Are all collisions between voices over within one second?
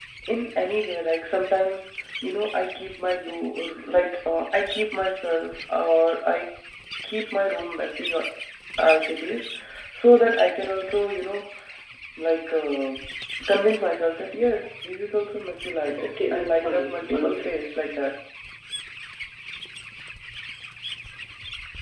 No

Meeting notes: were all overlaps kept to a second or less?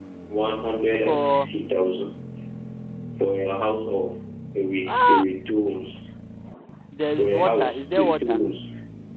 No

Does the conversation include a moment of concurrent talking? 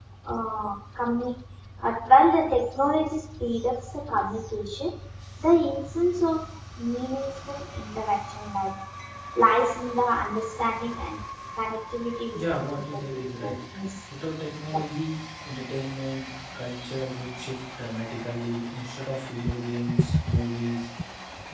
Yes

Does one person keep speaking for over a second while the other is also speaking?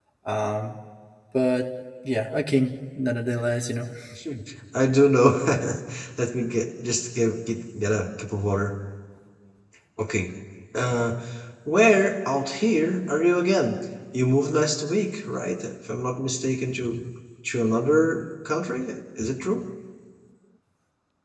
No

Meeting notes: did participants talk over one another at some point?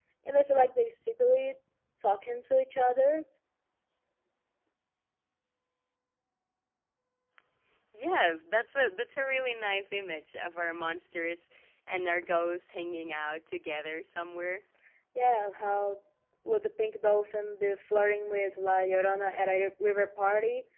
No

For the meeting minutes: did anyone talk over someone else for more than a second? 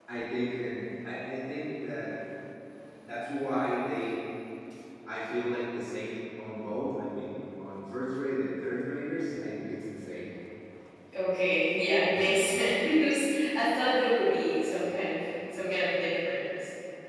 No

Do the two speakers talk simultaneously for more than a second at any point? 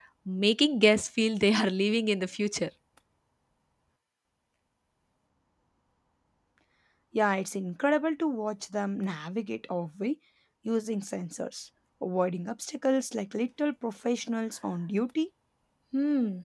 No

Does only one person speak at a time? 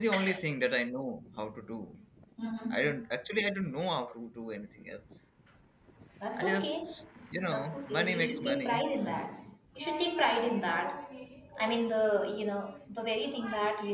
No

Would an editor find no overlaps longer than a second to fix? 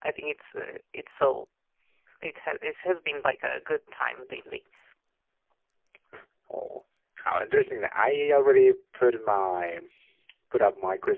Yes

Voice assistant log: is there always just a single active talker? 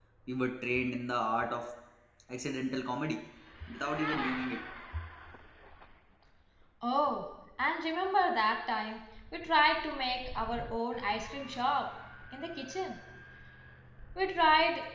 Yes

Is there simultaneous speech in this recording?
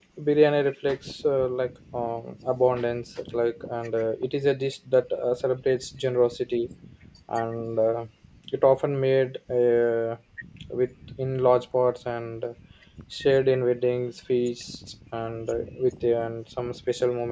No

